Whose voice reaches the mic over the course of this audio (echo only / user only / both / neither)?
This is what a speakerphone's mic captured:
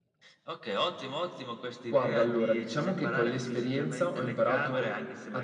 echo only